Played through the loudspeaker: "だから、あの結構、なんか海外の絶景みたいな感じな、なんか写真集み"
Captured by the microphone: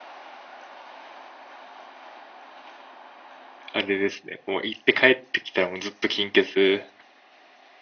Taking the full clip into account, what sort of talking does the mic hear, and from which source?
user only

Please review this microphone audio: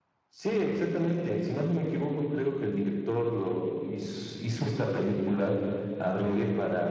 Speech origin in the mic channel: echo only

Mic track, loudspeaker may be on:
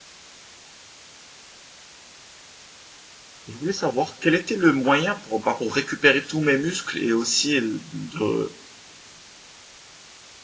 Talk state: user only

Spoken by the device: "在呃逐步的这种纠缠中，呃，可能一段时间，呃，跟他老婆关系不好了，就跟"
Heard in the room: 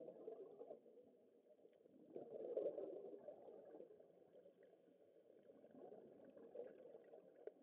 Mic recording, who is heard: neither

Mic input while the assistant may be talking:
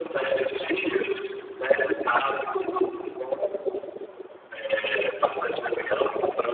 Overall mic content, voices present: echo only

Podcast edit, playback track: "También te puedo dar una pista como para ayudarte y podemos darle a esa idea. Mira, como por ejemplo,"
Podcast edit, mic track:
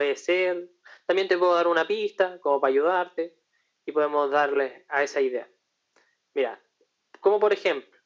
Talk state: echo only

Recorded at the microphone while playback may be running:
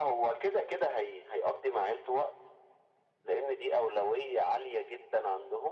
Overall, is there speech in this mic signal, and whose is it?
echo only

